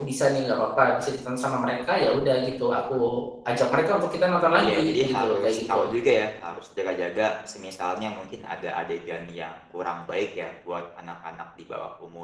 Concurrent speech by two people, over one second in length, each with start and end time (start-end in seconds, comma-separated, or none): 4.6-5.9